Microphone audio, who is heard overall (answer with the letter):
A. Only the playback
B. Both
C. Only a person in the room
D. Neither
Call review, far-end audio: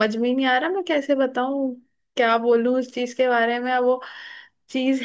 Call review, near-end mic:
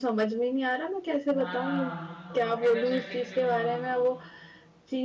B